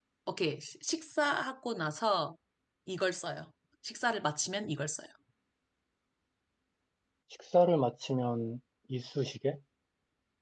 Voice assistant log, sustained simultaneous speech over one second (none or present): none